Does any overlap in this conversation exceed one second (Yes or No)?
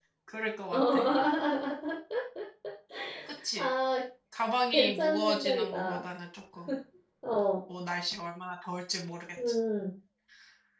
Yes